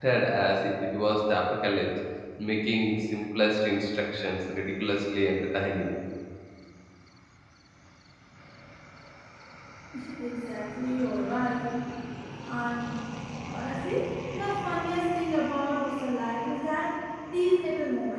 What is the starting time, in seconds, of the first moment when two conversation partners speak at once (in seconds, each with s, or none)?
none